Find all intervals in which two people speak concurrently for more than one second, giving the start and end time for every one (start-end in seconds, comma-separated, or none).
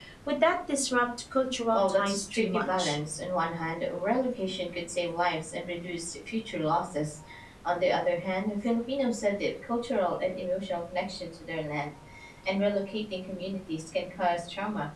1.7-3.0